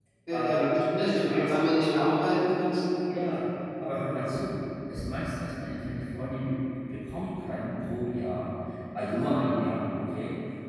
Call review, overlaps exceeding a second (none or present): present